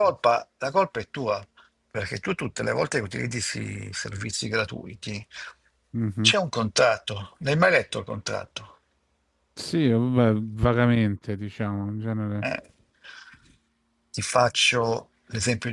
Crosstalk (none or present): none